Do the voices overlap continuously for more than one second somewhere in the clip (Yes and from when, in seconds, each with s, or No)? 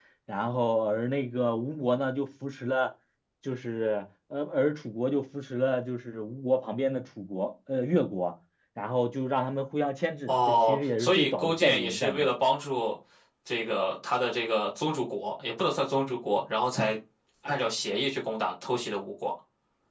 Yes, from 10.3 s